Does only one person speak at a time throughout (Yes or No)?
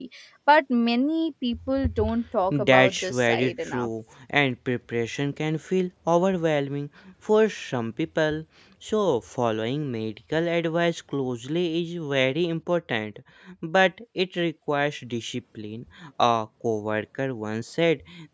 No